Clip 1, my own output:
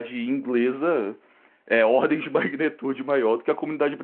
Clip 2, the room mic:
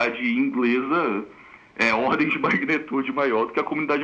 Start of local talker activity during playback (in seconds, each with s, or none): none